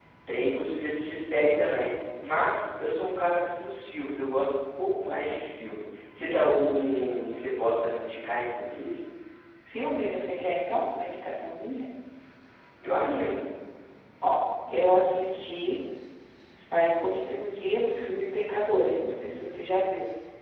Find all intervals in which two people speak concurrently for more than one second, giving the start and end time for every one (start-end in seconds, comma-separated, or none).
none